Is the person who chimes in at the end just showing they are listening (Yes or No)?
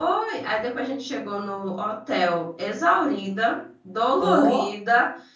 Yes